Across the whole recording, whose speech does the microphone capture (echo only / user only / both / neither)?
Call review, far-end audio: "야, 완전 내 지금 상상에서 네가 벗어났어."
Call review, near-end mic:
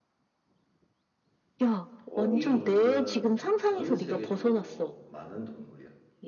both